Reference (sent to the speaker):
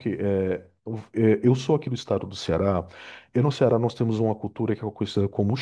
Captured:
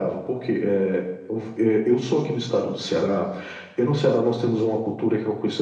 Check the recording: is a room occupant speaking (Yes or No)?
No